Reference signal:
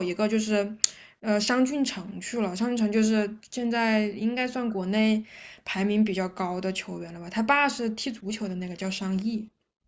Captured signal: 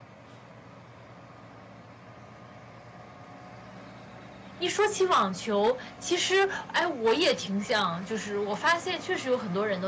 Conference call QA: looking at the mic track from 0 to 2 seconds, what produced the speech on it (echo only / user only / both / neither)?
neither